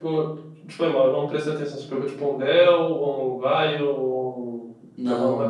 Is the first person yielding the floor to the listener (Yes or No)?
Yes